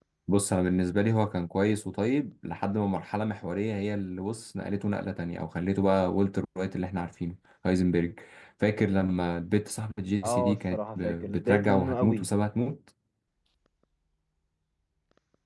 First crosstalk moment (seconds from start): 10.2 s

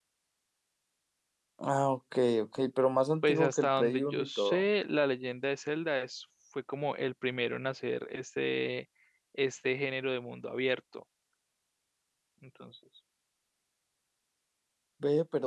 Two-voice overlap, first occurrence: 3.2 s

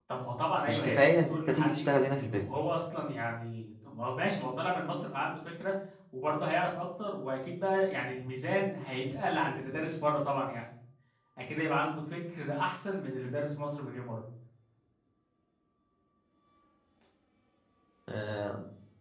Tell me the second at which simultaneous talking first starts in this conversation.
0.7 s

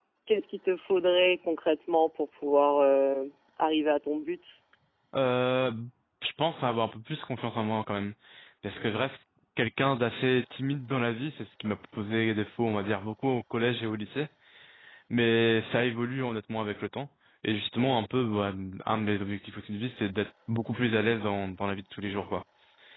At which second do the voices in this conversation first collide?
none

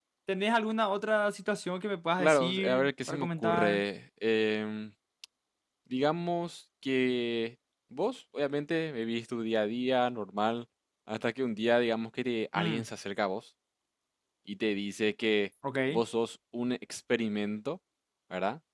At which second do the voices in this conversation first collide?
2.2 s

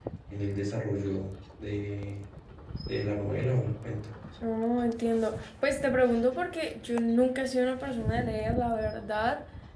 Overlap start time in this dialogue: none

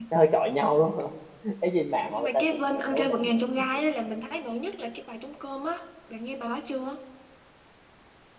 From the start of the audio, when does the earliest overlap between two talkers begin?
2.1 s

